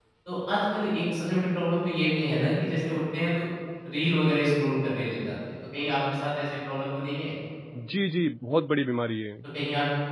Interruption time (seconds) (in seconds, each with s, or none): none